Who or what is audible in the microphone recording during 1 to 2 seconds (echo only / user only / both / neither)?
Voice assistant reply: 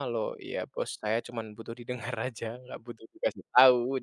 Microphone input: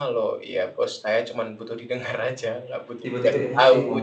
echo only